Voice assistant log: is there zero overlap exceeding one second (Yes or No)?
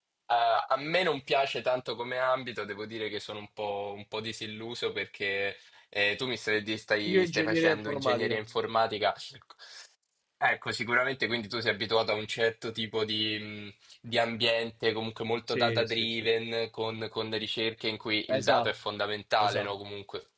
No